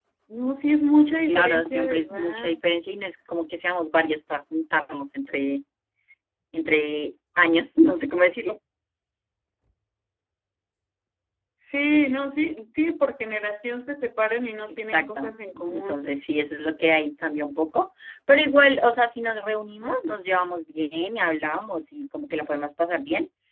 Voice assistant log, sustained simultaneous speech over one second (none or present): present